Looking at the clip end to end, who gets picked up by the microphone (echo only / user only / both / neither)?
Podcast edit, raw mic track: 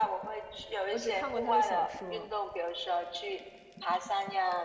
both